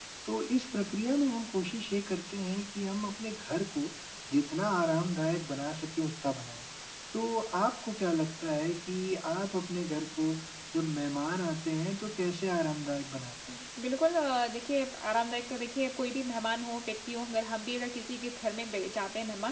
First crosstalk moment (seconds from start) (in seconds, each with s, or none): none